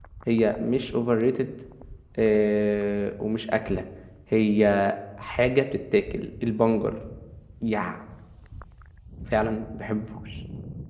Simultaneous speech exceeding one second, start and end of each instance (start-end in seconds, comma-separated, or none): none